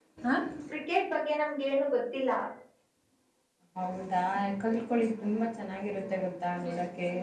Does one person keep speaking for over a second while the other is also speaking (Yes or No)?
No